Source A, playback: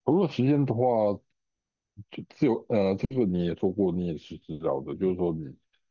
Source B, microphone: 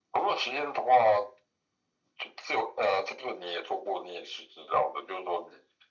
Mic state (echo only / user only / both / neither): echo only